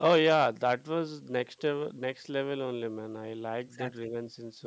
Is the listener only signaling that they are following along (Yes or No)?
No